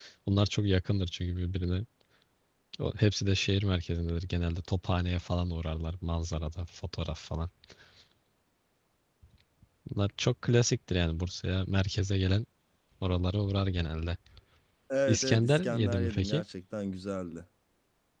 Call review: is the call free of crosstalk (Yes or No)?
No